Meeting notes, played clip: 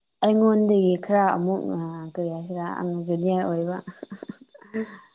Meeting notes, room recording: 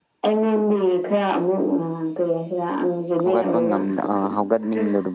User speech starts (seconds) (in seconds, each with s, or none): 3.2 s